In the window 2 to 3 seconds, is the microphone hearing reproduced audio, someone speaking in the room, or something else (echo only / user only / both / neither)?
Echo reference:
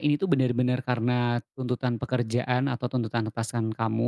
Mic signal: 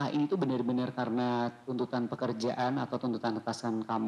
echo only